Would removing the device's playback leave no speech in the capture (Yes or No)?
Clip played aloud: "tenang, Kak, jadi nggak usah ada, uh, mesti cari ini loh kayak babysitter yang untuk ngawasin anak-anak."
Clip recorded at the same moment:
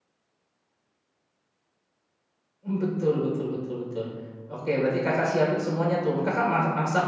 No